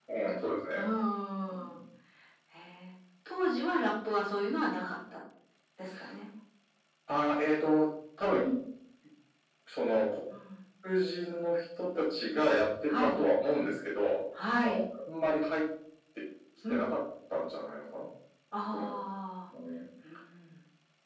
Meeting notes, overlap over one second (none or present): none